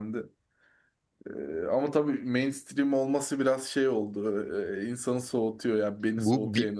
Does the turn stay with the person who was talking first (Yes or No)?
No